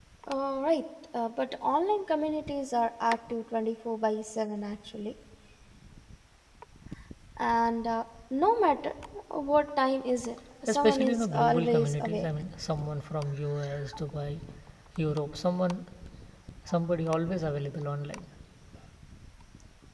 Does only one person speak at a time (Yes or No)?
No